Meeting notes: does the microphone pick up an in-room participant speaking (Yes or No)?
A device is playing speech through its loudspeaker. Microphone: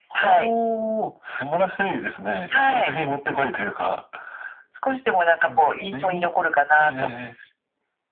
No